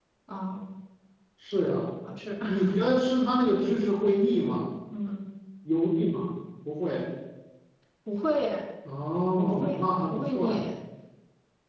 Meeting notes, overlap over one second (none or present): present